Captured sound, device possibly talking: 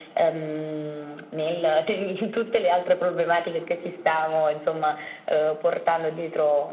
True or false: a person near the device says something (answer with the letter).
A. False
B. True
A